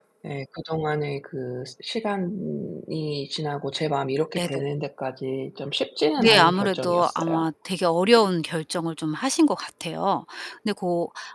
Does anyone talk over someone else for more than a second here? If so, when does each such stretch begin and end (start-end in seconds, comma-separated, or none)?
6.2-7.5